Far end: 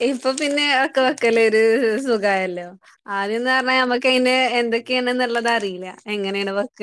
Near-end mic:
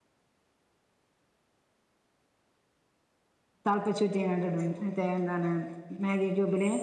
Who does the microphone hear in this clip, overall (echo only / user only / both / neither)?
user only